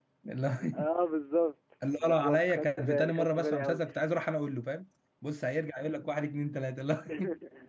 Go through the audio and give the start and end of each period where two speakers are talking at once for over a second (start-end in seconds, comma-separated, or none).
2.0-3.8